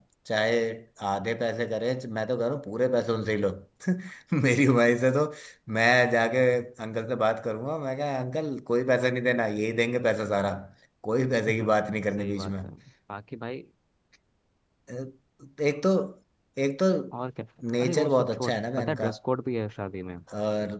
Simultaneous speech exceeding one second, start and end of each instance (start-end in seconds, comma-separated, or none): 17.8-19.1